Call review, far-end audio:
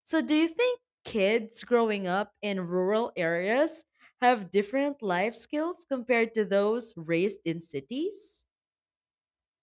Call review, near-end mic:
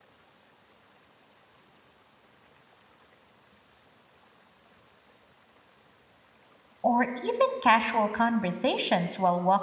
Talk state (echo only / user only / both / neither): user only